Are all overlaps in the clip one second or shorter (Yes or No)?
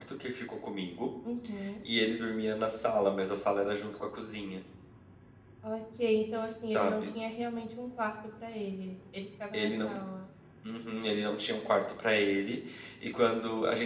Yes